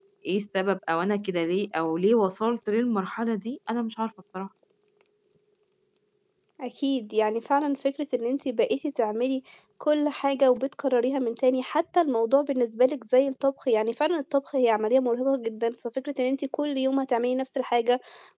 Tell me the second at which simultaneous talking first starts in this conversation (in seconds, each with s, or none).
none